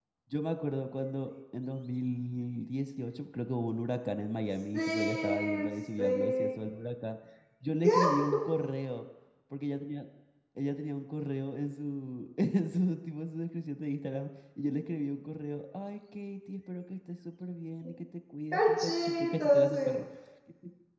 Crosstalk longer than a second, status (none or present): present